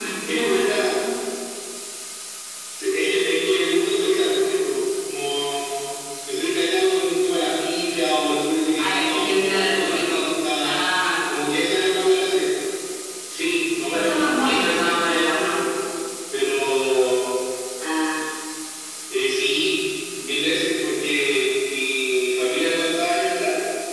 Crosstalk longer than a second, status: present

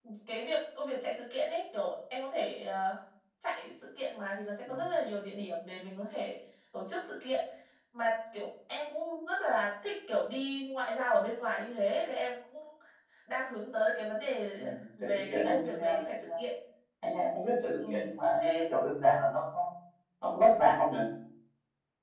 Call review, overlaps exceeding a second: present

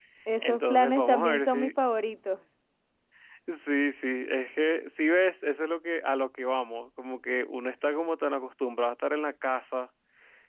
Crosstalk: present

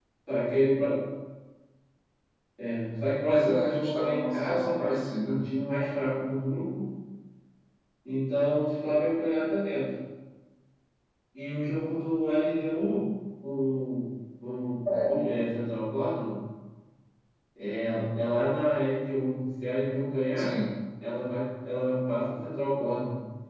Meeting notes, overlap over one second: present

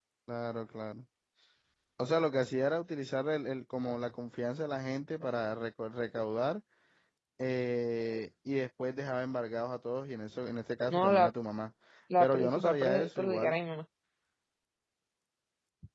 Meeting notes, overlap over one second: present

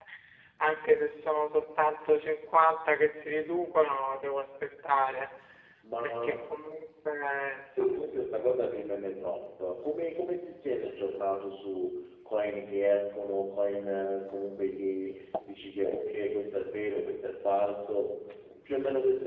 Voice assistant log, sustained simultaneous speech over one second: none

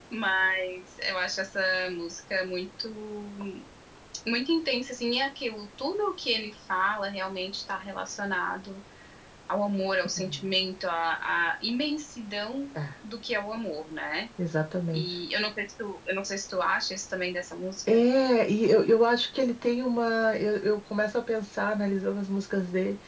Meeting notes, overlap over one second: none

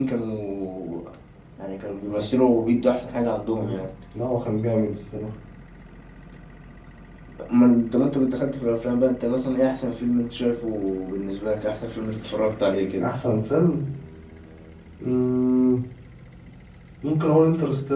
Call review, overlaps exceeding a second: none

